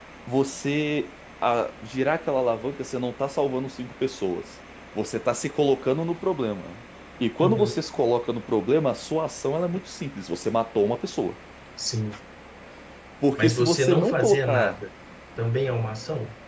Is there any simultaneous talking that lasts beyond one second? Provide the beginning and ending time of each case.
13.4-14.8

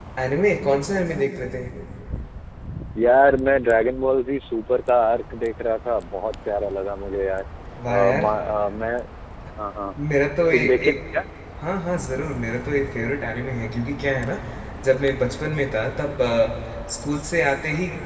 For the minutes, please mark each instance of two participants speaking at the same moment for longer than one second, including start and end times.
none

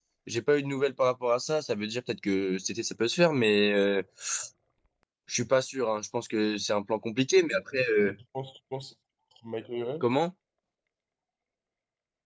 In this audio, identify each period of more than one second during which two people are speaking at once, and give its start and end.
none

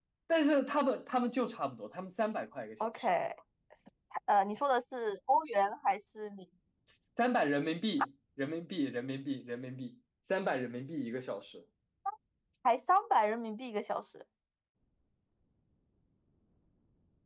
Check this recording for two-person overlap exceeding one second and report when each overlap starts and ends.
none

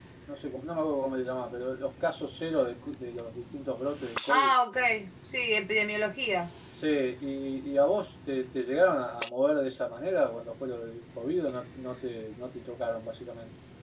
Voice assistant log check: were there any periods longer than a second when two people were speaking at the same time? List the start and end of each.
none

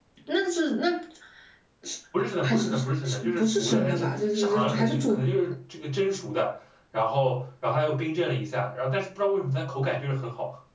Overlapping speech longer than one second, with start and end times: 2.4-5.2

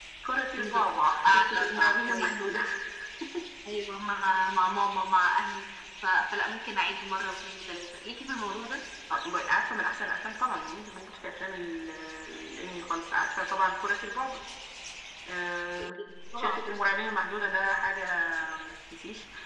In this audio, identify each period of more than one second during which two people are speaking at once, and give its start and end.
1.2-2.6

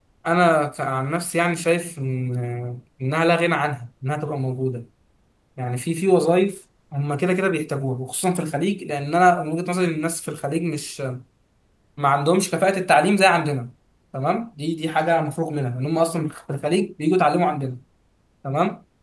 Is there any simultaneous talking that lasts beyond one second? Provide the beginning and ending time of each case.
none

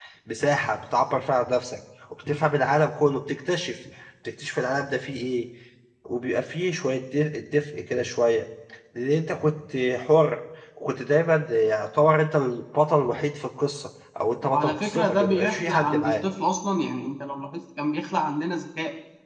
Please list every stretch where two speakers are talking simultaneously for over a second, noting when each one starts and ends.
14.4-16.2

